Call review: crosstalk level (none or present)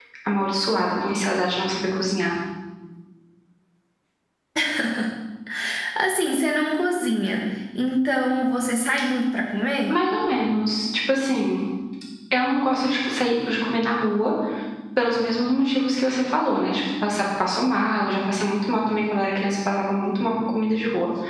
none